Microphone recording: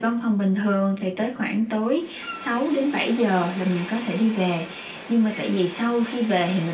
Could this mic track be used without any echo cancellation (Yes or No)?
No